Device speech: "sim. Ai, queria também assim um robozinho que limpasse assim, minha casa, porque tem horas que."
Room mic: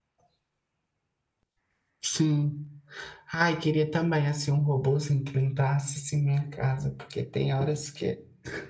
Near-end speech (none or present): none